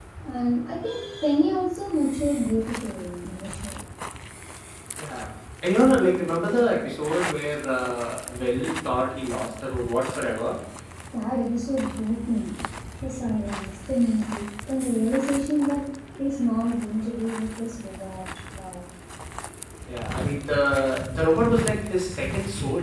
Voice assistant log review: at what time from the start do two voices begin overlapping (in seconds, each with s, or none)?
none